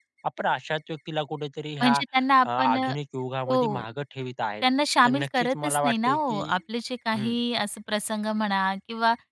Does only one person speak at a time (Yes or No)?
No